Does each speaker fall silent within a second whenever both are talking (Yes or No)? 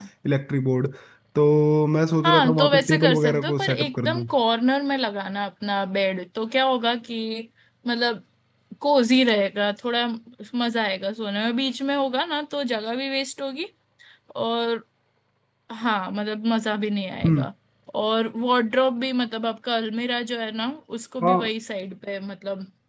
No